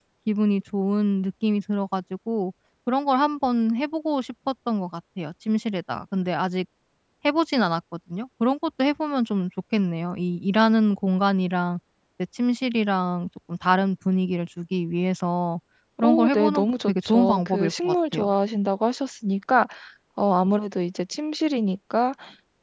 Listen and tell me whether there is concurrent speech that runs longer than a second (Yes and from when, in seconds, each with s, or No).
Yes, from 16.0 s